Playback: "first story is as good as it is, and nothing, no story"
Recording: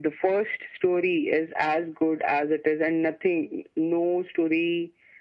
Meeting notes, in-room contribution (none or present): none